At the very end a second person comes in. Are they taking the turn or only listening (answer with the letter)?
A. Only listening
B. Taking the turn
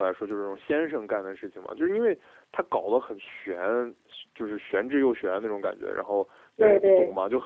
A